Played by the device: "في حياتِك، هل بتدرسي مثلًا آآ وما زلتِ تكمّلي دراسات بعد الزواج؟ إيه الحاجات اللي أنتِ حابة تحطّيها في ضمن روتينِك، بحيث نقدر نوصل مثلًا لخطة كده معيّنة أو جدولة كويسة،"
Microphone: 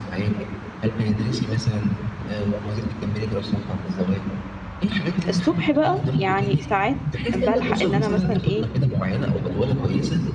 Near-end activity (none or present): present